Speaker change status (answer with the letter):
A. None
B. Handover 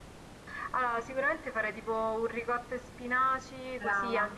A